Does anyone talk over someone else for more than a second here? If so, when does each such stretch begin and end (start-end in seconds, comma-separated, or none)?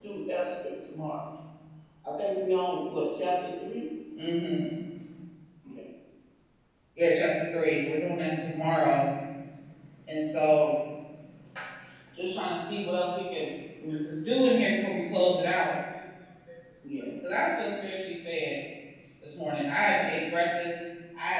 none